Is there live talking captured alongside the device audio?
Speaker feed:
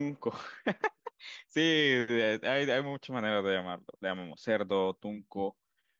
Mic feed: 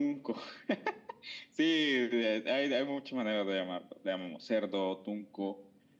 No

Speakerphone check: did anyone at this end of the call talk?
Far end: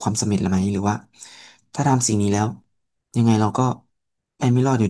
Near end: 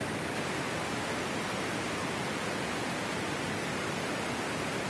No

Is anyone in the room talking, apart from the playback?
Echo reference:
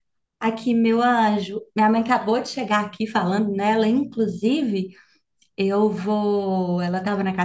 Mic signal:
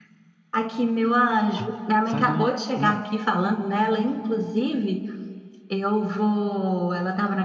Yes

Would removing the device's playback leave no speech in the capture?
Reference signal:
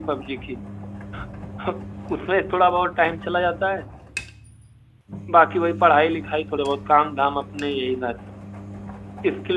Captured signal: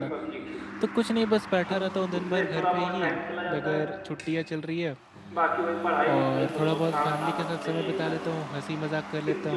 No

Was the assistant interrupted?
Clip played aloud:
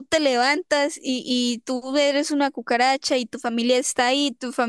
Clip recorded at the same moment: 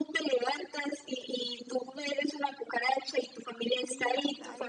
Yes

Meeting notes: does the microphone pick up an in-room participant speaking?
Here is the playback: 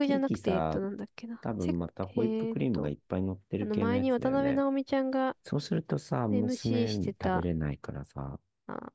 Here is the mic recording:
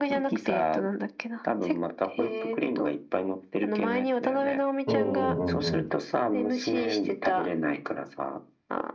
Yes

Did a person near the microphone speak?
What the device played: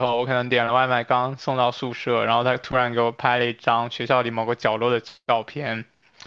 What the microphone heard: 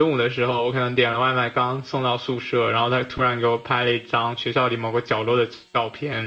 No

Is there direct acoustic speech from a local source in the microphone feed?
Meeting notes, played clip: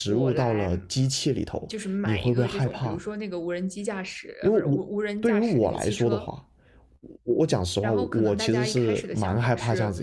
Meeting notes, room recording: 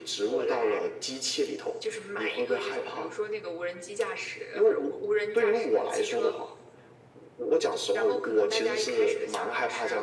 No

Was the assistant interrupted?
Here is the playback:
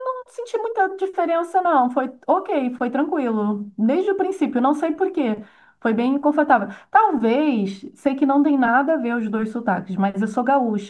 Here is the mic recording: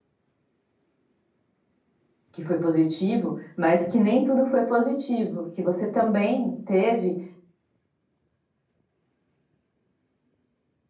Yes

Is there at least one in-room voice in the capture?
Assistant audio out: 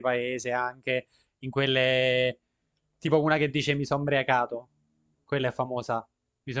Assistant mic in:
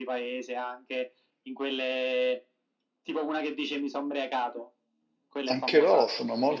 Yes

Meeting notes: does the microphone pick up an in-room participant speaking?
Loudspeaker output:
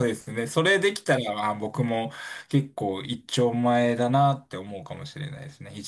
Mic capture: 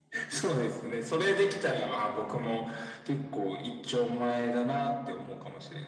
No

